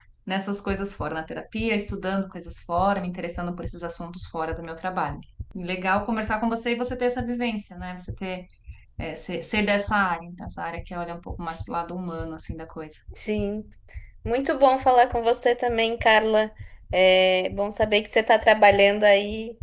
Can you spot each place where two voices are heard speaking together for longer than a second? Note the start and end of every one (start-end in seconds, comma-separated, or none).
none